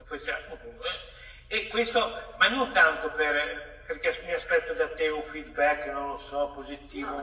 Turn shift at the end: No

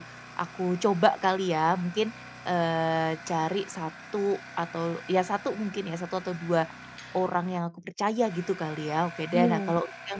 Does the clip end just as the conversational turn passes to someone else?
No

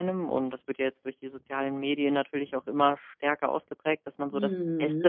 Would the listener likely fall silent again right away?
Yes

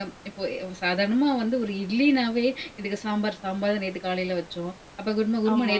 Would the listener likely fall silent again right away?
Yes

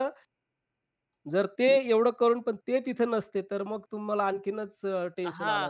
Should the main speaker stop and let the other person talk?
Yes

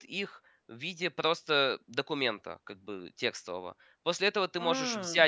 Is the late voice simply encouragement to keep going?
Yes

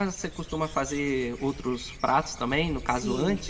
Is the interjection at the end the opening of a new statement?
Yes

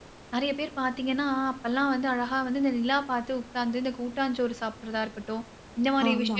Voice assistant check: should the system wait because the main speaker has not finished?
Yes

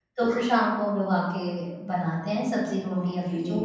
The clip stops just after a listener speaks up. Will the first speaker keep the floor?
No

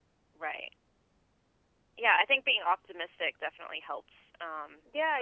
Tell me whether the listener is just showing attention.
No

